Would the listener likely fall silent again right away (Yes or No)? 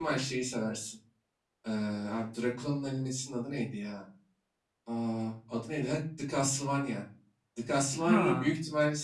Yes